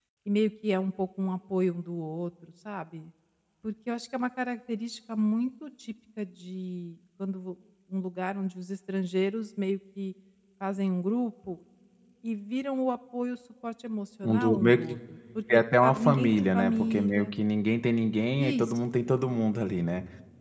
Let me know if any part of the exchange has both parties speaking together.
Yes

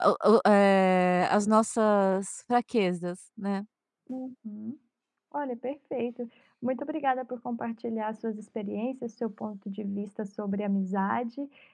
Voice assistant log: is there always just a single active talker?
Yes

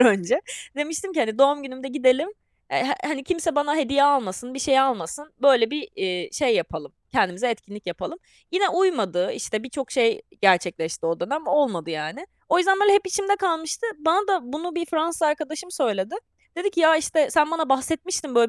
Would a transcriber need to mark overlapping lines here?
No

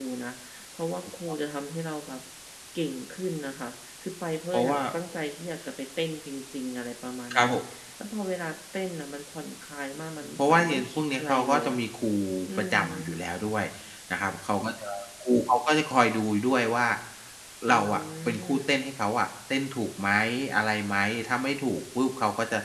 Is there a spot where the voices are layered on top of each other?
Yes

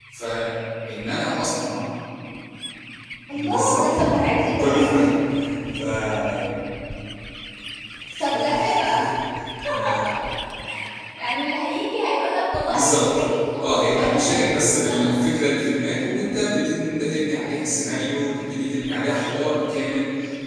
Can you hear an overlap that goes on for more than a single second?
Yes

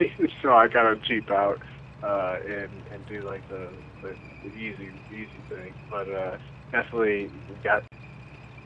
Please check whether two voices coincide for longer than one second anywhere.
No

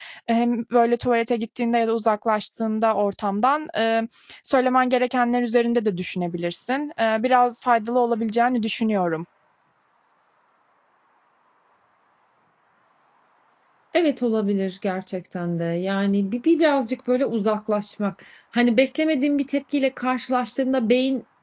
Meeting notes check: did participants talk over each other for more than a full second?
No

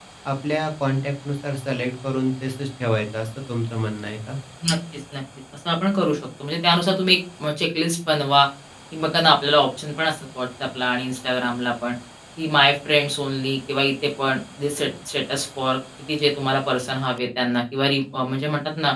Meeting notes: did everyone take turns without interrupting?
Yes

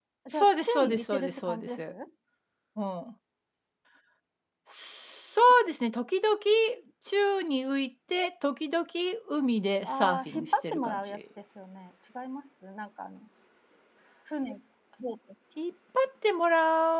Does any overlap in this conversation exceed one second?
Yes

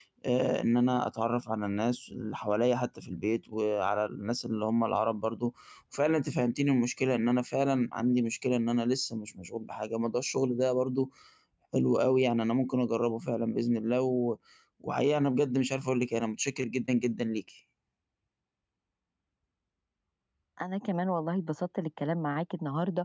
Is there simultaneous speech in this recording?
No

